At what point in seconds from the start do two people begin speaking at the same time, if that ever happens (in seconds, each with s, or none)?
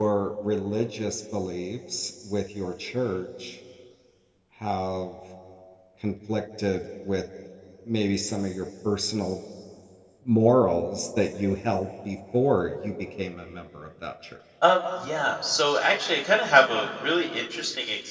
none